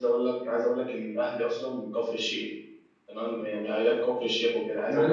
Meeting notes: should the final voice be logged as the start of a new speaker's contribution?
Yes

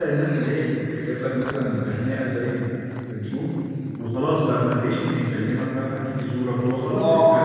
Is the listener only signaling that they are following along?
No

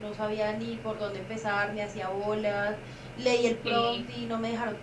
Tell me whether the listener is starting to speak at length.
No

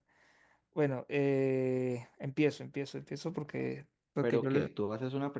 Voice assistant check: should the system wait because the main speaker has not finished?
No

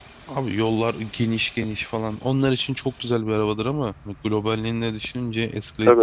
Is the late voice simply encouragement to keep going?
No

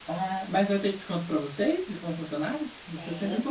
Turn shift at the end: Yes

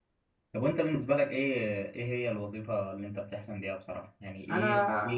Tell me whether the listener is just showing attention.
Yes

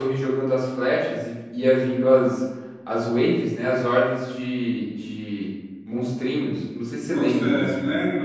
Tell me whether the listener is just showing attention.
No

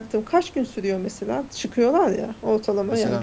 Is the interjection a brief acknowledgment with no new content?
No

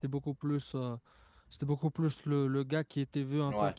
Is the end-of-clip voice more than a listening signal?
No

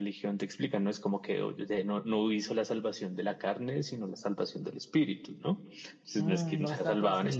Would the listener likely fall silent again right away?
No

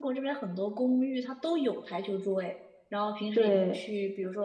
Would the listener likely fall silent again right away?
Yes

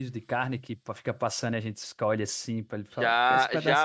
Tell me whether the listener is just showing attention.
No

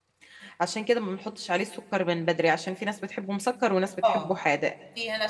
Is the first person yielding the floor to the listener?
Yes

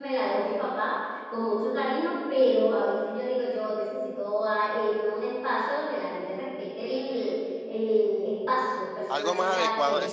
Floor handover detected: Yes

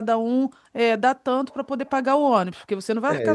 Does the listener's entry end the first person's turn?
Yes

